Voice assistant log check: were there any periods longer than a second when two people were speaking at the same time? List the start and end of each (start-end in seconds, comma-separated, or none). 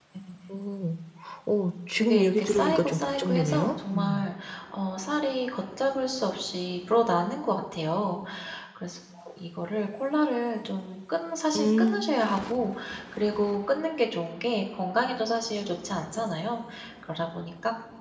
2.0-4.3